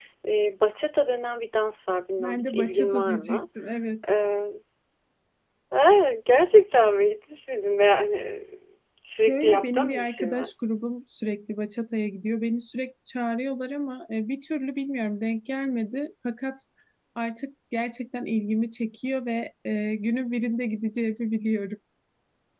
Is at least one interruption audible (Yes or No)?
Yes